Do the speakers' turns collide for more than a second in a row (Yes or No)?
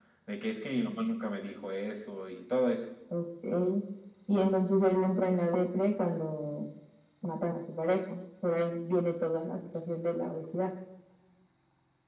No